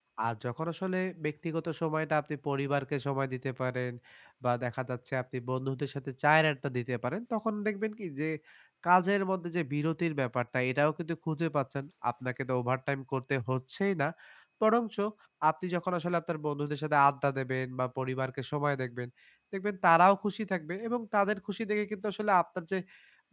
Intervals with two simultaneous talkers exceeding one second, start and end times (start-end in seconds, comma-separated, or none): none